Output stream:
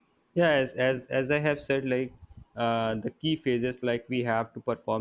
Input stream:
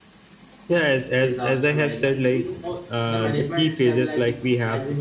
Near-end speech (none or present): present